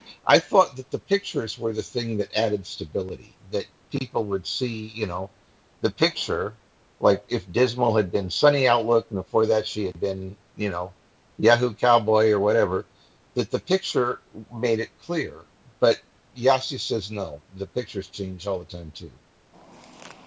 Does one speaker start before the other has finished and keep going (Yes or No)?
No